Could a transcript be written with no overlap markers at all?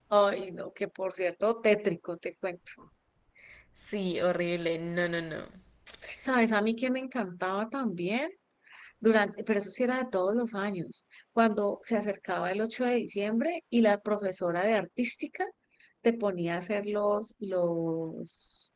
Yes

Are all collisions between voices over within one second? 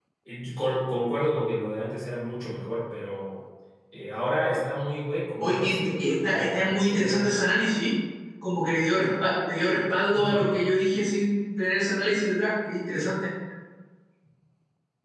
No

